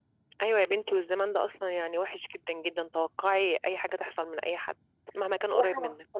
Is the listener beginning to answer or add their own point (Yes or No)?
Yes